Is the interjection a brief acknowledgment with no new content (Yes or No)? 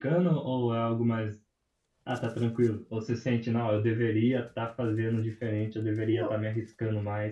Yes